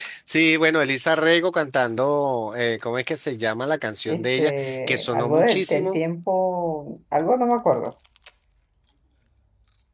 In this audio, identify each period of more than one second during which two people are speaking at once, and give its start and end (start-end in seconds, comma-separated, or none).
4.1-6.0